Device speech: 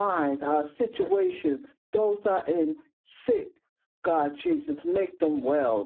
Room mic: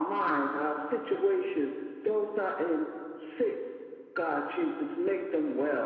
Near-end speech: none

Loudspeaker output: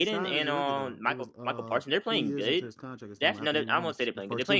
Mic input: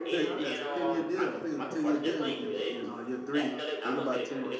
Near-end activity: present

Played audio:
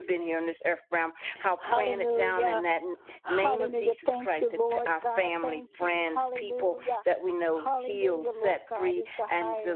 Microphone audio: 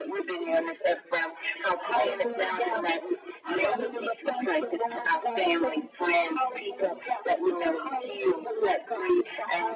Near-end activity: none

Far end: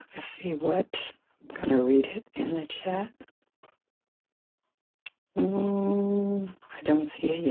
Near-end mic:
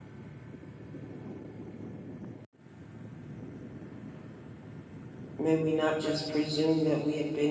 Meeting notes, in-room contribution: present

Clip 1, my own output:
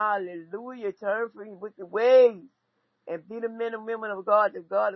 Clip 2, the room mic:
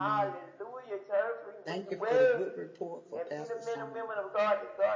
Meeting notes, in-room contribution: present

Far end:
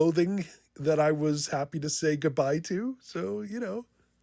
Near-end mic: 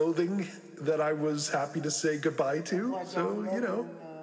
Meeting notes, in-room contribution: present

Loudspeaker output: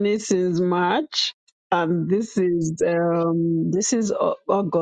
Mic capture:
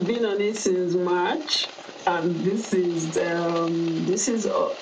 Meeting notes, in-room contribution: none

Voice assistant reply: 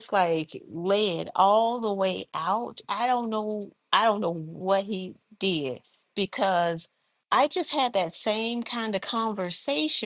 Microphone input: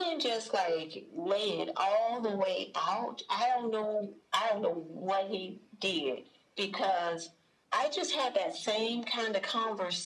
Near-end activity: none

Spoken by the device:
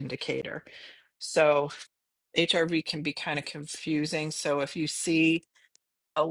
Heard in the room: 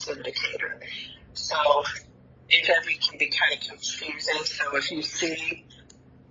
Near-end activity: none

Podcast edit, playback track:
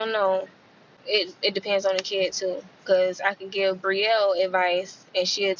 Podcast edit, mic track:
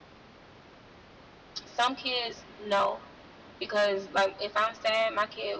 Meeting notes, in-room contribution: present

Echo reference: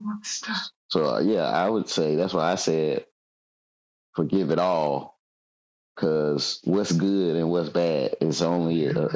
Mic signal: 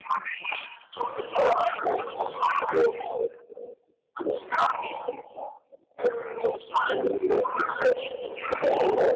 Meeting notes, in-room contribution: none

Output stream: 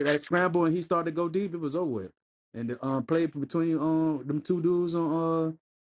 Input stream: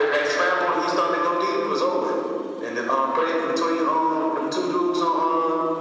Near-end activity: none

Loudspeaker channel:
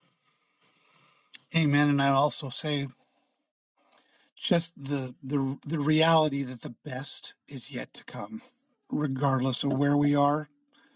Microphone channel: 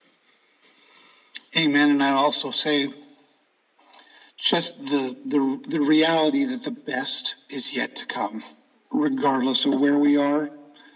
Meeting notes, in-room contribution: none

